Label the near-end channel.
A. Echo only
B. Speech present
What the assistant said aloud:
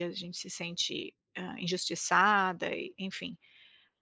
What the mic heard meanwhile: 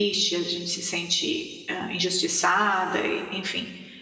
A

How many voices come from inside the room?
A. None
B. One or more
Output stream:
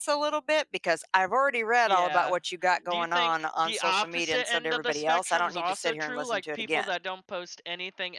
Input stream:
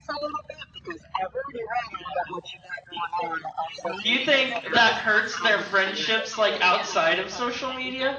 B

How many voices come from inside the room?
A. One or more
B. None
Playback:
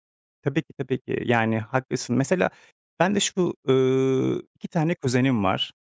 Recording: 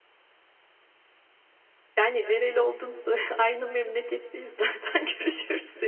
A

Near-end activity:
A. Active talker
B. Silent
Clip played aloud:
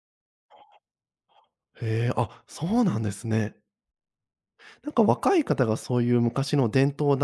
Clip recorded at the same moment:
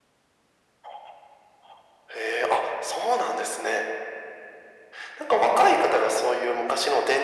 B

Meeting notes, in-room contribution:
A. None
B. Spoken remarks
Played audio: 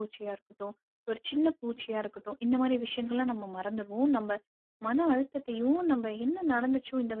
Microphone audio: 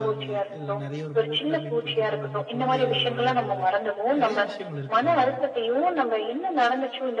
B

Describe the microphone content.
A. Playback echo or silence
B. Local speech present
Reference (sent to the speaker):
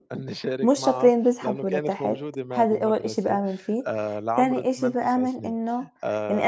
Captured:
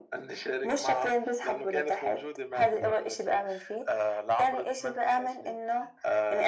B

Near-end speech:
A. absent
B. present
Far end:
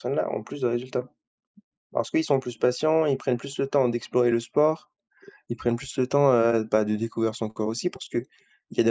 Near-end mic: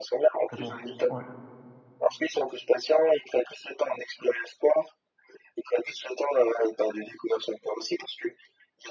B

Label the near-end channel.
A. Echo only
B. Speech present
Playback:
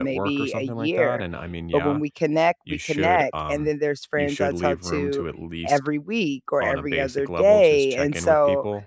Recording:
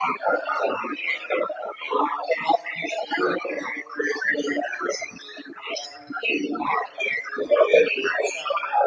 A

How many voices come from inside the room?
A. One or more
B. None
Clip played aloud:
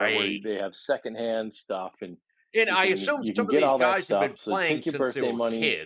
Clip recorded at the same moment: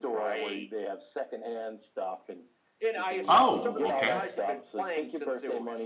A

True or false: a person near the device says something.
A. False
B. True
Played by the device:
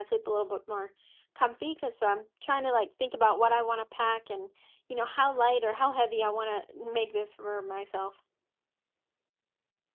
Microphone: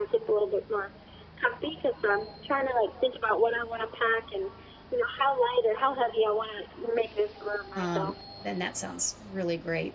B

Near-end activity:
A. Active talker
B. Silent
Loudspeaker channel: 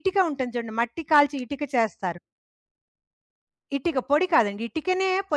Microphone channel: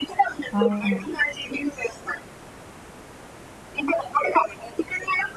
A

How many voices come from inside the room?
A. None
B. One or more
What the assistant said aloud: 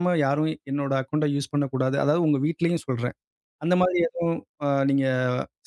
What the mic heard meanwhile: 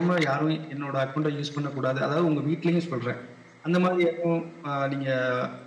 A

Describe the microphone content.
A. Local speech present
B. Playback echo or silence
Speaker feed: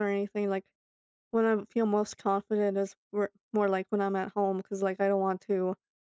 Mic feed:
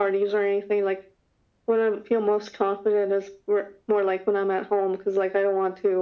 B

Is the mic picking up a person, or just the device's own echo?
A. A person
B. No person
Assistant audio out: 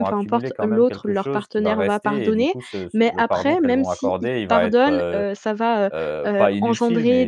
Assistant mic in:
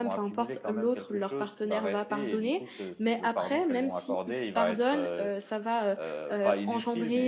B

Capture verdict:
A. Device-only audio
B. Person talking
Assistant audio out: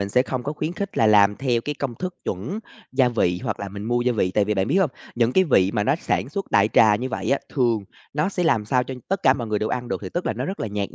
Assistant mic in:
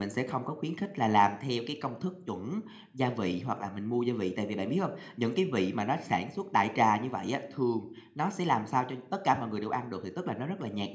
A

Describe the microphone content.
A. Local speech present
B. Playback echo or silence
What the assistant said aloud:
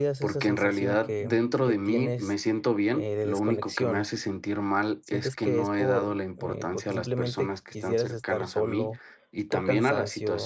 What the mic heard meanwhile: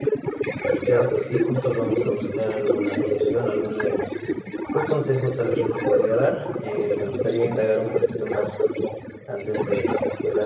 A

